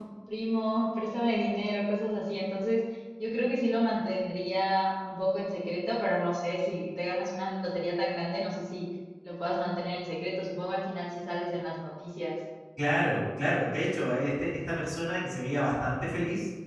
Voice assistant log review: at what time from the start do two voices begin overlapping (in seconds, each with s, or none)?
none